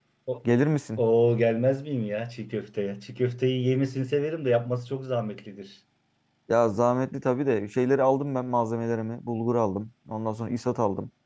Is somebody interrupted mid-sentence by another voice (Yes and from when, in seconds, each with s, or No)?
No